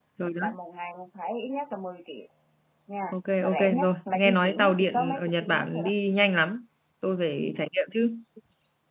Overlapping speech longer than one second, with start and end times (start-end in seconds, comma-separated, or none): 3.1-5.9